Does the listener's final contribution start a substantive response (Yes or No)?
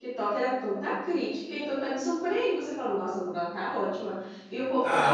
Yes